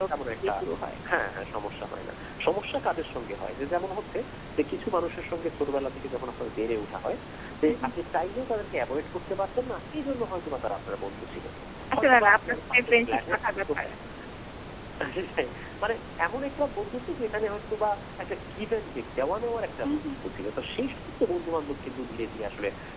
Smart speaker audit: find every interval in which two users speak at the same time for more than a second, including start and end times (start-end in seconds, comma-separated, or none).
12.0-13.6